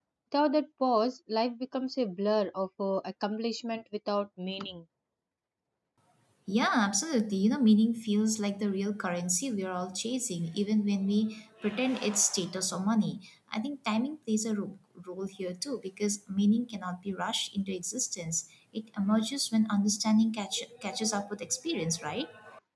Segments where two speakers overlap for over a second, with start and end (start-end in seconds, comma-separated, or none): none